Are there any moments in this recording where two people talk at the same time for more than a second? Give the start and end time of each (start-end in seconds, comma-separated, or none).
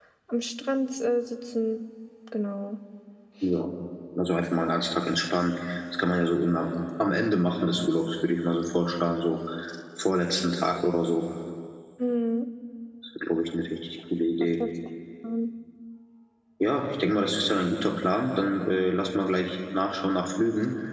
none